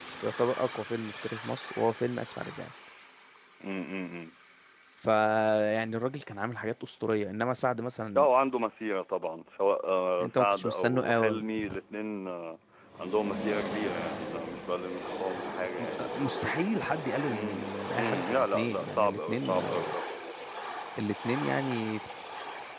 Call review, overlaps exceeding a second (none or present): present